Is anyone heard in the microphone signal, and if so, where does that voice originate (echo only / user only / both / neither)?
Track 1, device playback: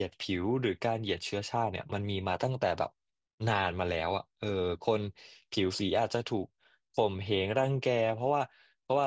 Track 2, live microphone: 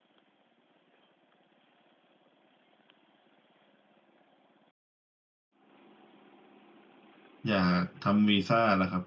user only